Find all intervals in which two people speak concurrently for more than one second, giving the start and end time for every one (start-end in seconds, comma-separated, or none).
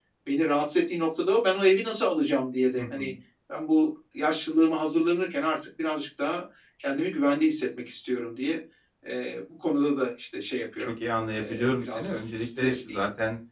11.4-13.0